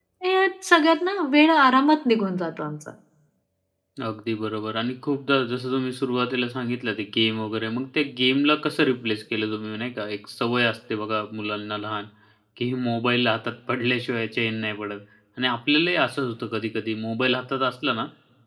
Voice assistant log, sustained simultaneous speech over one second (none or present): none